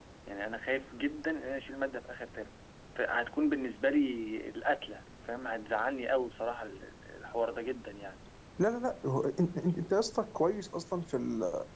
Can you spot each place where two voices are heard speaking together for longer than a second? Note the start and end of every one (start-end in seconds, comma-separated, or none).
none